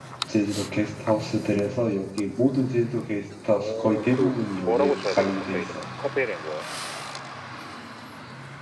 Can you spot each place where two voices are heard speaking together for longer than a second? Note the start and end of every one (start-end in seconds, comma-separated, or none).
3.5-5.8